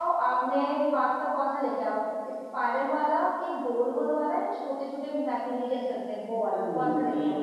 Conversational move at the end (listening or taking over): taking over